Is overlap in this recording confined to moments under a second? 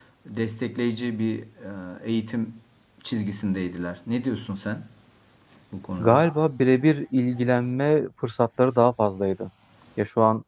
Yes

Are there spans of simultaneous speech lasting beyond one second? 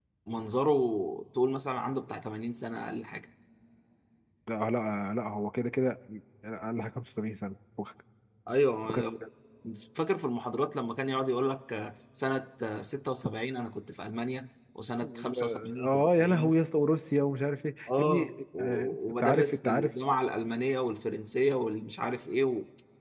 Yes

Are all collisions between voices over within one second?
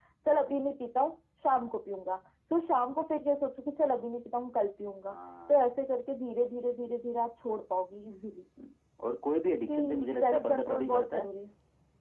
No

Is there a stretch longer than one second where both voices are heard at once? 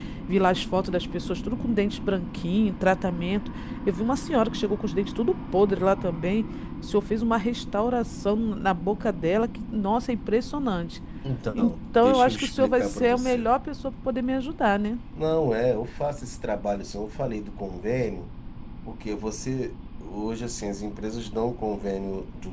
Yes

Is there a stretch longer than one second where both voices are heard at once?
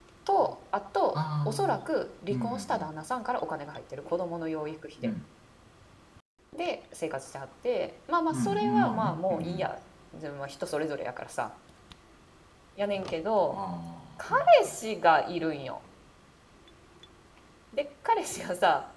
Yes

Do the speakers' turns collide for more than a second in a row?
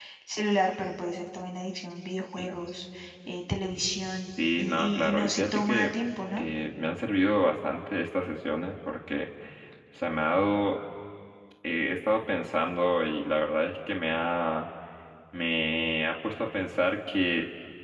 Yes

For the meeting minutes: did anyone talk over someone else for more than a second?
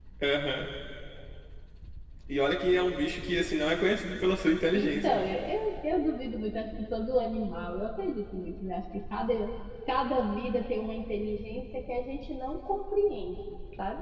No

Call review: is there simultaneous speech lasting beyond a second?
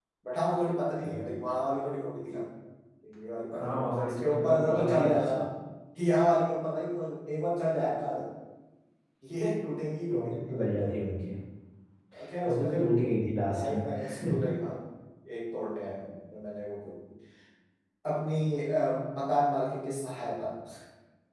Yes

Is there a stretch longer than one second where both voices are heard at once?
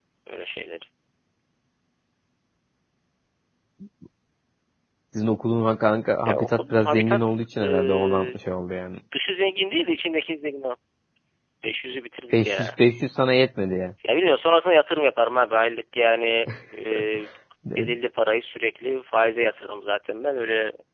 Yes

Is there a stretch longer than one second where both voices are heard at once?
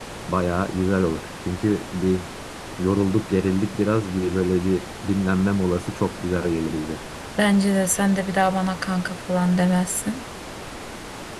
No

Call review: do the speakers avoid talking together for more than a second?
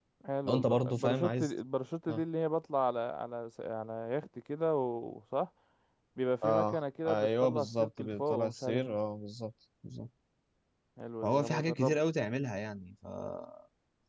No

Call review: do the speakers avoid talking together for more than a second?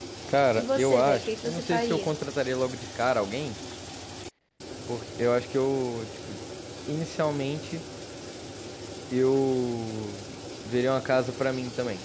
No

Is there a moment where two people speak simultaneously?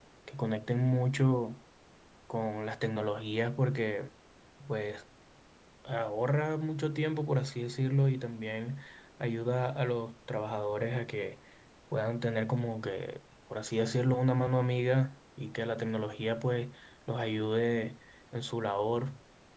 No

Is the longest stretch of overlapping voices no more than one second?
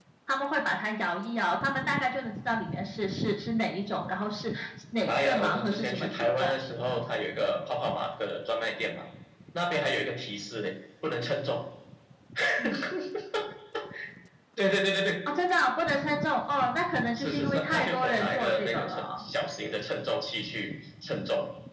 No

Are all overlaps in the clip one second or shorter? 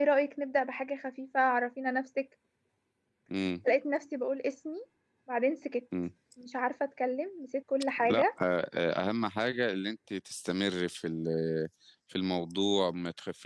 Yes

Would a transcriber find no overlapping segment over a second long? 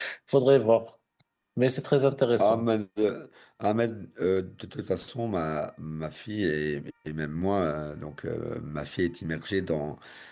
Yes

